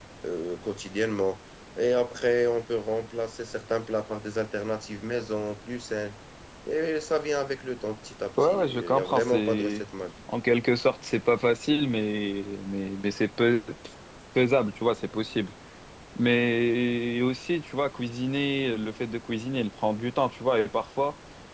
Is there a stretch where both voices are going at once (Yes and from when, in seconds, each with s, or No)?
Yes, from 8.4 s